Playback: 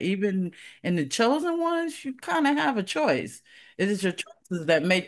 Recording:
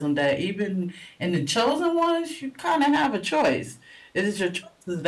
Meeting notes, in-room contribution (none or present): none